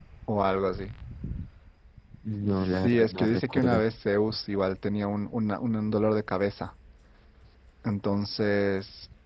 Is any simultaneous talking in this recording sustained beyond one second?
Yes, from 2.5 s

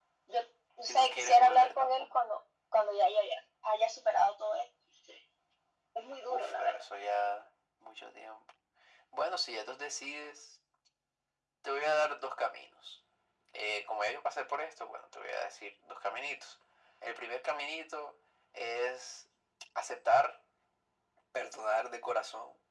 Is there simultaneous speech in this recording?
Yes, from 0.9 s

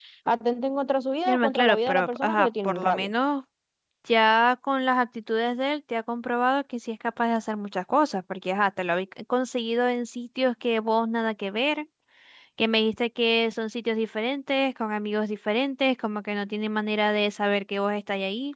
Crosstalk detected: Yes, from 1.2 s

